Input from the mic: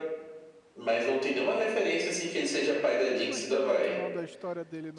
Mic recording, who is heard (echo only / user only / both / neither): both